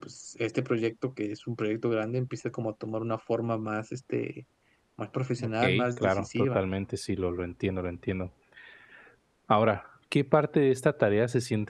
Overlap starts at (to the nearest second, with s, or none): 5 s